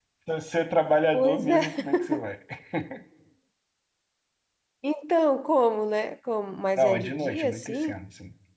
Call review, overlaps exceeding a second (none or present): present